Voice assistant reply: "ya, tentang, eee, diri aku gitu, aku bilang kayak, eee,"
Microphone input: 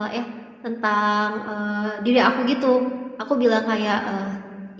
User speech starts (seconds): none

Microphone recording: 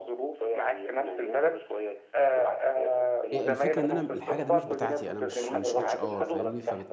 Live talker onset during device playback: 3.3 s

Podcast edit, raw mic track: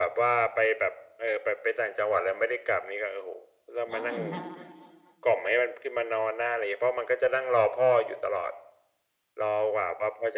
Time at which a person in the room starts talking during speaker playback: 3.9 s

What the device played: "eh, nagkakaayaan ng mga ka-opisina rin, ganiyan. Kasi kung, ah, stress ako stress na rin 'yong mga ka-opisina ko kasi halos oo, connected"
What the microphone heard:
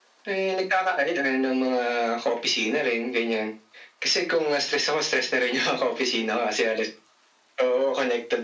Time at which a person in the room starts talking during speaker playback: none

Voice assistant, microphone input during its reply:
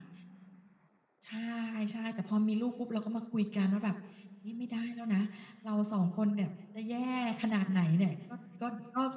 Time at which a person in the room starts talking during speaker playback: none

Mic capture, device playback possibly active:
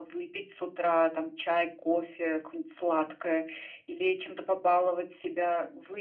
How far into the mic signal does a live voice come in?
none

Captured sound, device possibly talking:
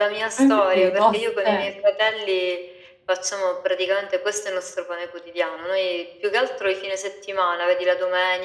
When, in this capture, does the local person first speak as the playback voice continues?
0.4 s

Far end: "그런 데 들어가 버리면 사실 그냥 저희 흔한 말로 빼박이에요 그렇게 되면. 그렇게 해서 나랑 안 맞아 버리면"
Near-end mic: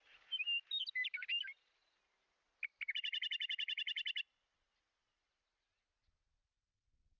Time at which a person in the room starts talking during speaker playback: none

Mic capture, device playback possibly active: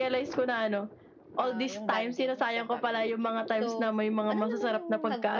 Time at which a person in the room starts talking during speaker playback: 1.4 s

